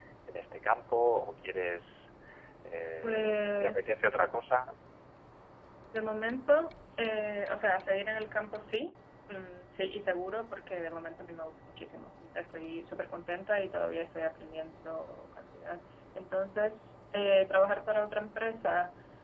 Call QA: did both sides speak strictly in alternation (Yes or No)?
No